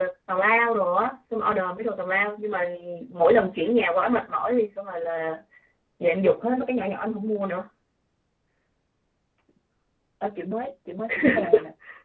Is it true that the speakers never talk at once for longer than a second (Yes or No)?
Yes